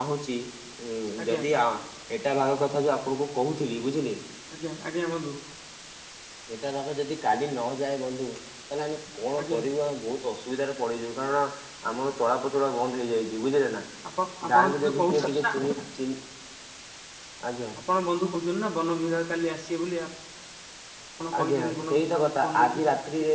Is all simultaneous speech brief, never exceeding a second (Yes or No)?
No